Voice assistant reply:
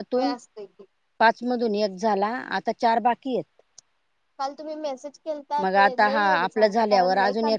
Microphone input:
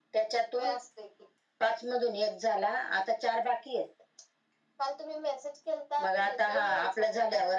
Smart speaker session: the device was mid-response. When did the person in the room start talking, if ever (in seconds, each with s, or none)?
none